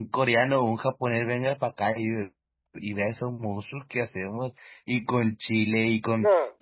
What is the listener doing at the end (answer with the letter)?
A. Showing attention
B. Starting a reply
A